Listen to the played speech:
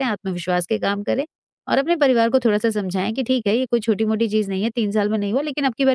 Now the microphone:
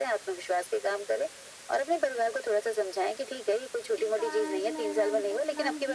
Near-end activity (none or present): present